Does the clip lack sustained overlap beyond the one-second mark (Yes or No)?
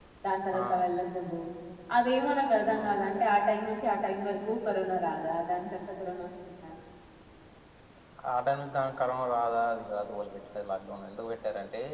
Yes